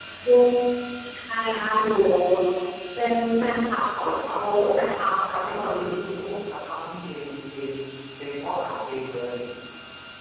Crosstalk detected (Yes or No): Yes